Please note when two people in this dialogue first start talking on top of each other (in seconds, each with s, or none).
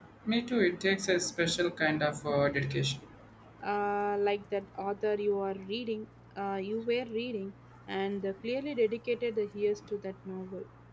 none